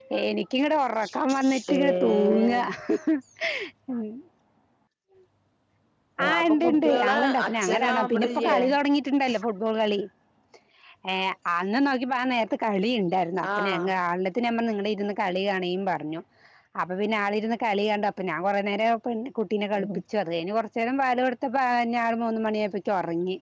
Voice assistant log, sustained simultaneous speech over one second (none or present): present